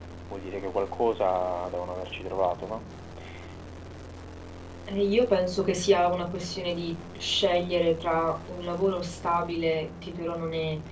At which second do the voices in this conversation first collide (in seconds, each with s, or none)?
none